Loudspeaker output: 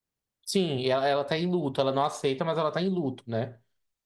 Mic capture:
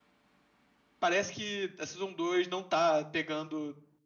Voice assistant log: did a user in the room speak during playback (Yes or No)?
Yes